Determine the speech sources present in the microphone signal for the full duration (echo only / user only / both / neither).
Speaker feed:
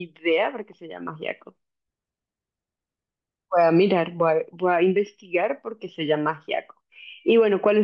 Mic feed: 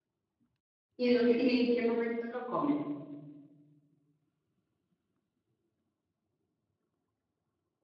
user only